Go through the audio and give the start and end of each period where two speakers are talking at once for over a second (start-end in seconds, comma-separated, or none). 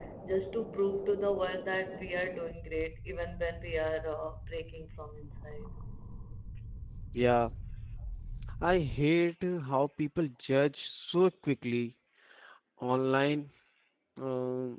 none